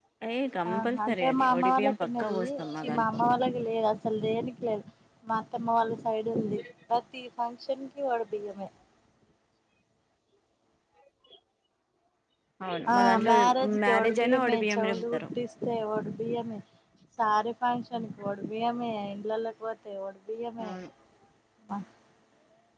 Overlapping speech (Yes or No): Yes